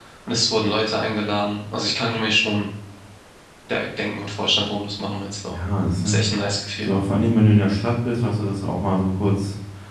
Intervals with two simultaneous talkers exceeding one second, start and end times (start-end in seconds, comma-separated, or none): none